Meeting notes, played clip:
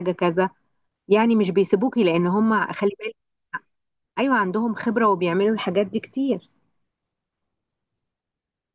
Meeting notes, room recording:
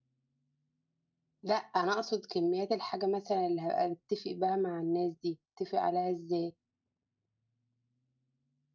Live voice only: لا أنا أقصد كميات الحاجة مثلا اللي هبقى بتفق بها مع الناس دي أتفق عليها إزاي

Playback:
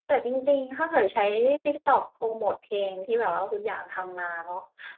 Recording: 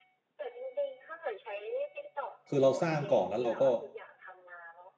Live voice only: คือเราสร้างก่อนแล้วเราก็

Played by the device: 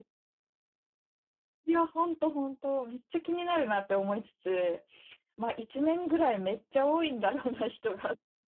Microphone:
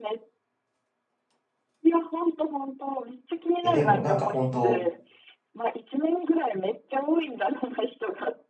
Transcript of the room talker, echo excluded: え、でも、なんか本当、

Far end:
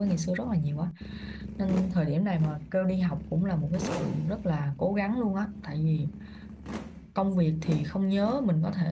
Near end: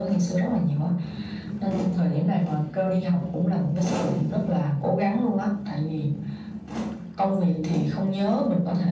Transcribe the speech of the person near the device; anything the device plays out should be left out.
none

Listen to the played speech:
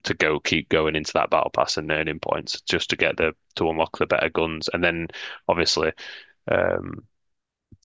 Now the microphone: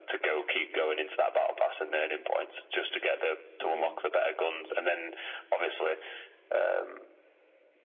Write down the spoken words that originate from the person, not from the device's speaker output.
hmm

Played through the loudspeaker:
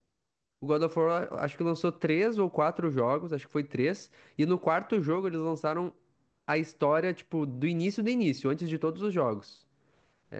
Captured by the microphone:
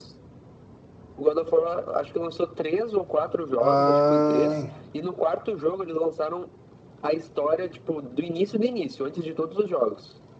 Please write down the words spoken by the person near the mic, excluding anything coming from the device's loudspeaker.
Ah,

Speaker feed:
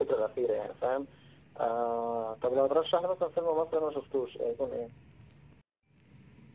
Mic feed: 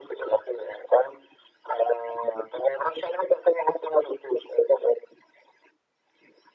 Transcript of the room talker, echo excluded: none

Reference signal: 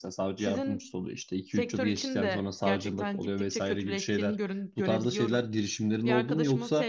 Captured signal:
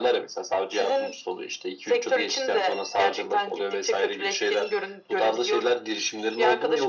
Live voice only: none

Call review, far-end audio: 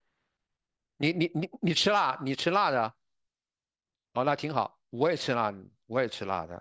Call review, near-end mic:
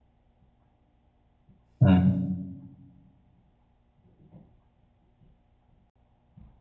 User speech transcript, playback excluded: 嗯

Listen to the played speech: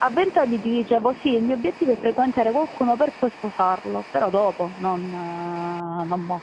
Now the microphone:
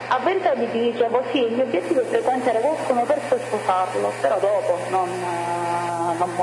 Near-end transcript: none

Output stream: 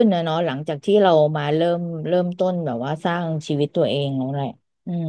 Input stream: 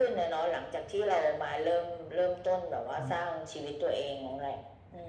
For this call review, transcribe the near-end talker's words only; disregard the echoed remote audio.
ครับ

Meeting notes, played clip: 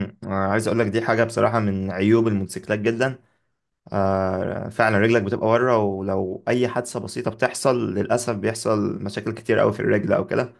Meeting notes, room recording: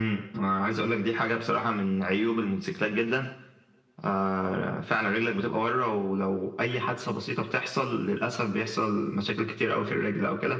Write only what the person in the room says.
none

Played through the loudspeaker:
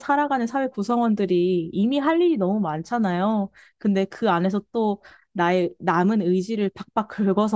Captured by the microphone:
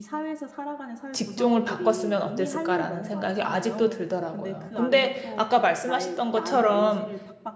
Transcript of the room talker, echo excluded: 직종을 바꿨으면 어땠을까라는 생각이 아직도 들더라고요. 근데 아까 말씀하셨던 것처럼

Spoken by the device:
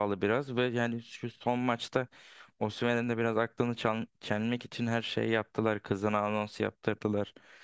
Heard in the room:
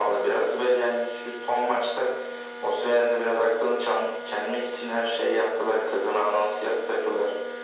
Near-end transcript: none

